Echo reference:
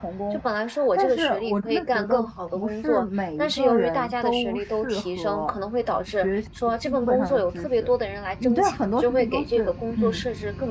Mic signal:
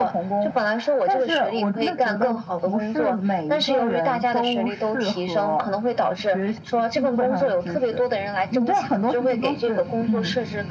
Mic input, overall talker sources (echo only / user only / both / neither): echo only